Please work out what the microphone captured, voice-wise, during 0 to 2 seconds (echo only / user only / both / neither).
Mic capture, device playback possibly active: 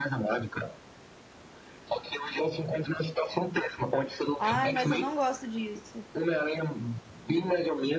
echo only